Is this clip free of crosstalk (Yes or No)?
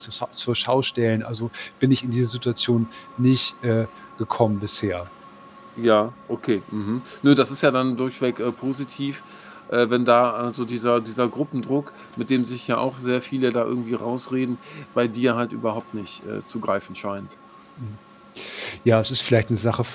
Yes